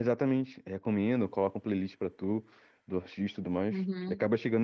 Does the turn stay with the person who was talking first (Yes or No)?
No